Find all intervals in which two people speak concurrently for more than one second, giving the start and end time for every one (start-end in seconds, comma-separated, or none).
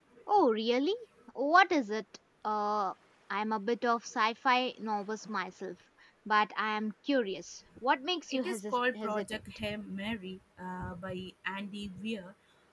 8.3-9.6